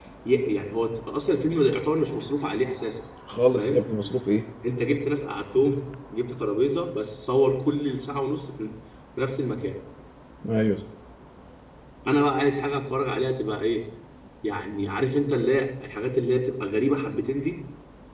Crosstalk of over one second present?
No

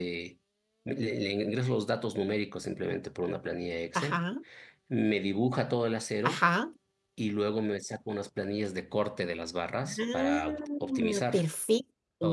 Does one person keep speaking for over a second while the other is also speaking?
Yes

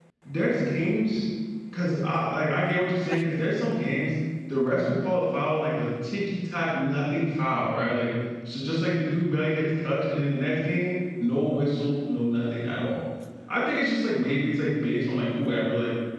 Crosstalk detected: No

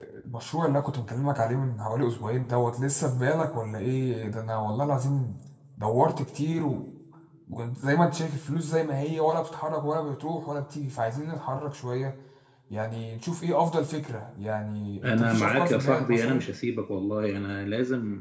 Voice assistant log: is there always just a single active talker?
No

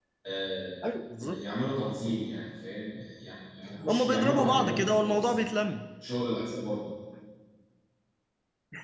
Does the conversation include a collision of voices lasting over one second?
Yes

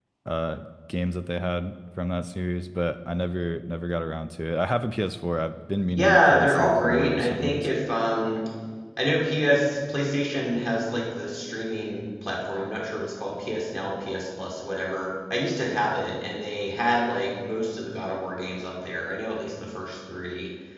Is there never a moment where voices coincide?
No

